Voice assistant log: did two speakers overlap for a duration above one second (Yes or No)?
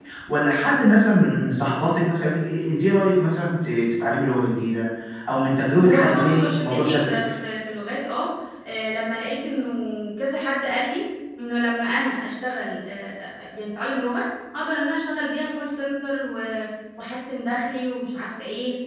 Yes